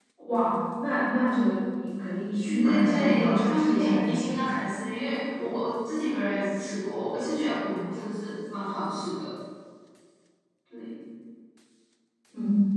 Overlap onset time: 2.4 s

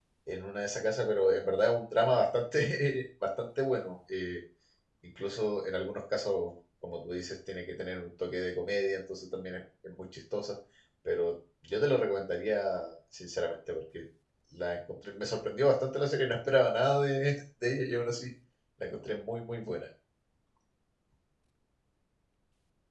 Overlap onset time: none

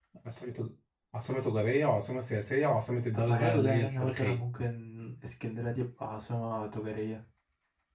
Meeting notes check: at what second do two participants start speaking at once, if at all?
3.1 s

